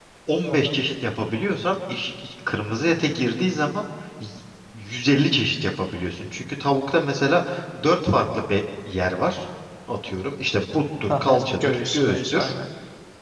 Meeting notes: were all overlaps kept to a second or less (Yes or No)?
No